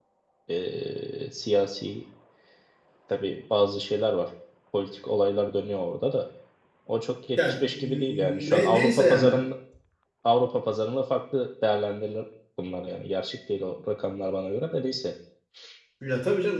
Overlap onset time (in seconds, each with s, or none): 7.4 s